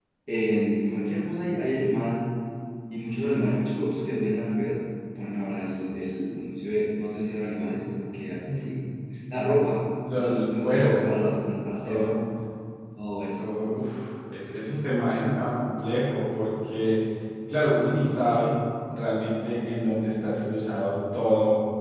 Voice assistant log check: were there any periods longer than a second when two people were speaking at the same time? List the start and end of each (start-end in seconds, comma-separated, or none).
10.1-11.4